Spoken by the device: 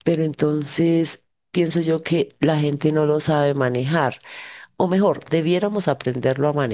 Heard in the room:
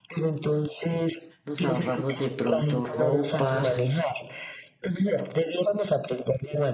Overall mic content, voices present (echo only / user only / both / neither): both